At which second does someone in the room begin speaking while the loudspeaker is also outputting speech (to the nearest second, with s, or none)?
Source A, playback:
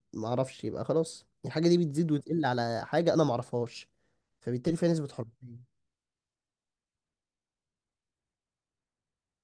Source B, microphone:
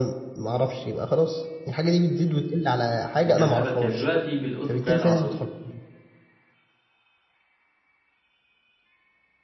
3 s